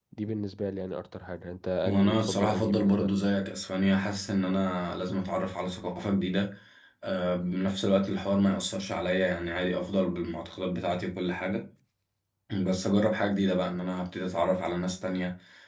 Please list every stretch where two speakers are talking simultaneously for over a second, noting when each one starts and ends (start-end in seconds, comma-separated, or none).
1.8-3.1